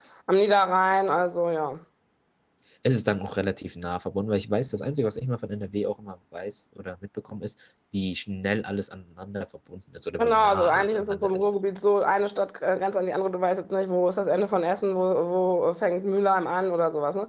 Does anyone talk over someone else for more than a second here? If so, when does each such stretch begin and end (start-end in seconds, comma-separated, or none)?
10.2-11.5